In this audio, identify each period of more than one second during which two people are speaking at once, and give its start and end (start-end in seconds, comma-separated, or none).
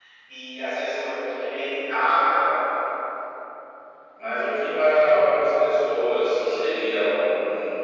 none